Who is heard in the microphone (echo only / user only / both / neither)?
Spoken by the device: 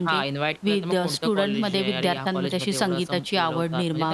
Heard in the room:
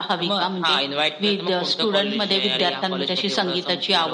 echo only